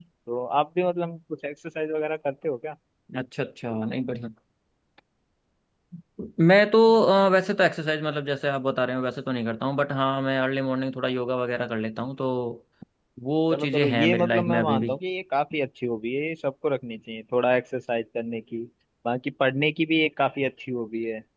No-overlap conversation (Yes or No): No